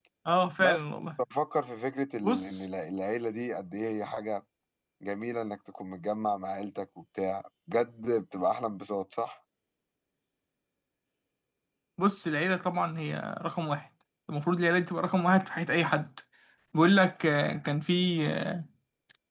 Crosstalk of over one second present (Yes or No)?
No